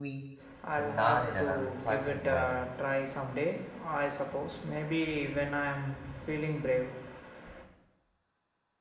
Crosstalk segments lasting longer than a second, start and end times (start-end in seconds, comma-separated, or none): 0.8-2.6